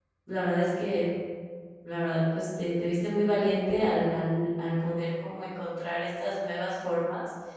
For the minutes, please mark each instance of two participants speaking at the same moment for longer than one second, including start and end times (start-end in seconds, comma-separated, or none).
none